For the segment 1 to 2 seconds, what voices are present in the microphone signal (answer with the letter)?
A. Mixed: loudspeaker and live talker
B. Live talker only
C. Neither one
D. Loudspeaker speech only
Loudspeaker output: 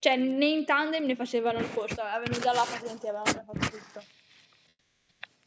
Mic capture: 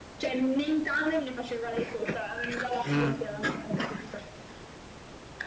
D